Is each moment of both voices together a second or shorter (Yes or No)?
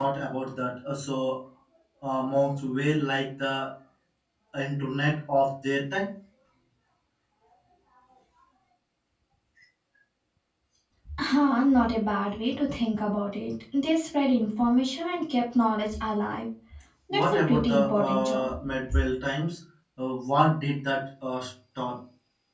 No